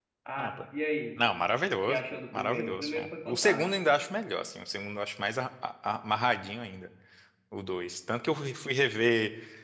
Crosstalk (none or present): present